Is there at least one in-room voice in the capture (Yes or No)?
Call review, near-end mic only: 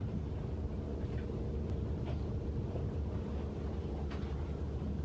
No